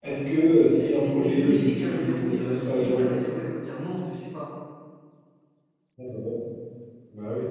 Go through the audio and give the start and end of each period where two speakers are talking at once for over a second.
0.8-3.1

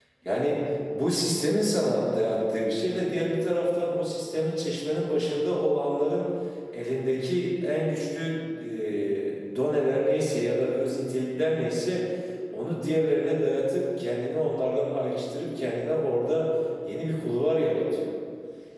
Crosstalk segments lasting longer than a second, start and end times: none

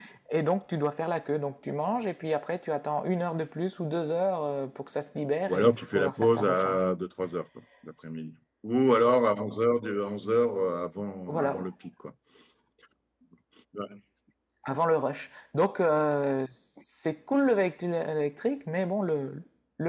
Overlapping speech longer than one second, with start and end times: 5.5-6.8

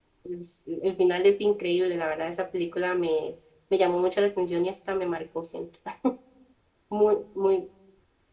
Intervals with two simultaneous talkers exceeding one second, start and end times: none

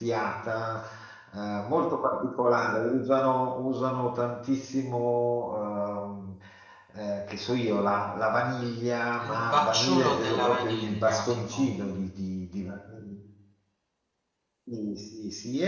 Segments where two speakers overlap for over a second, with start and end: 9.2-11.8

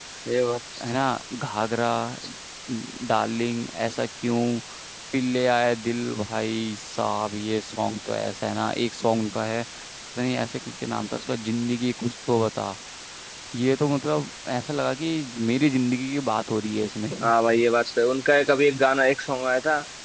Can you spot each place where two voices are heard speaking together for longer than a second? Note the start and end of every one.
none

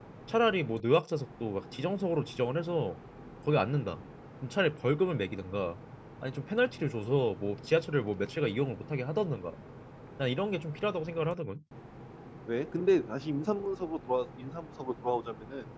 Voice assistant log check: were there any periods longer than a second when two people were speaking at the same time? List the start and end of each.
none

